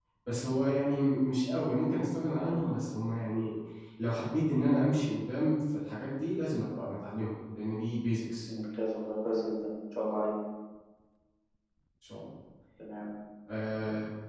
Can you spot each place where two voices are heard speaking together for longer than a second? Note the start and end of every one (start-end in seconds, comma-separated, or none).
none